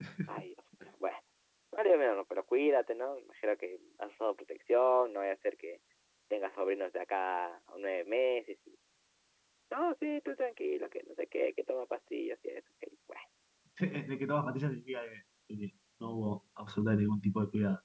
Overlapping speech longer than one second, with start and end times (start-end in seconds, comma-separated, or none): none